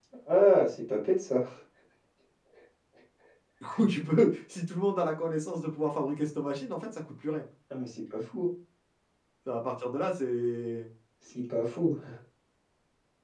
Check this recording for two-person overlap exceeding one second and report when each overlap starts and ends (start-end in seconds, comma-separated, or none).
none